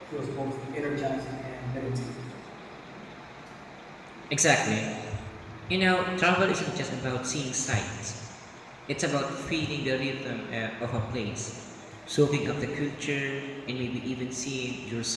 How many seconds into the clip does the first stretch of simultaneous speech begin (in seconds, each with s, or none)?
none